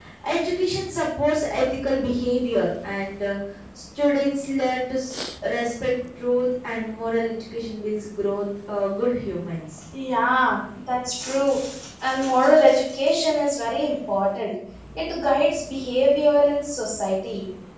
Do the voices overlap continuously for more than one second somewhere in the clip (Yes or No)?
No